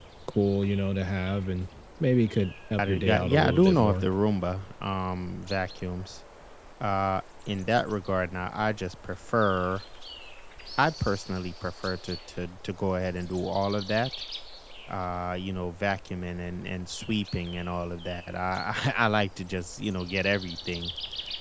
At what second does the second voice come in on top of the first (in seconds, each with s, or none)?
2.8 s